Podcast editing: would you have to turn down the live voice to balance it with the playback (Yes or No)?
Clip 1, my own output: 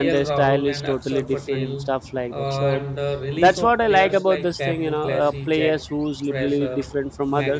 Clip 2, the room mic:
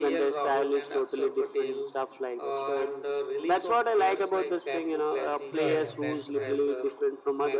No